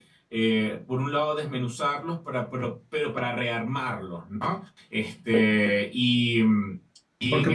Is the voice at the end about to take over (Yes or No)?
Yes